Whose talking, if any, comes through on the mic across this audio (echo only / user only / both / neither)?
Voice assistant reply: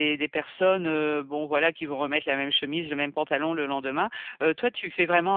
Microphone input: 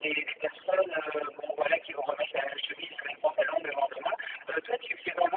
echo only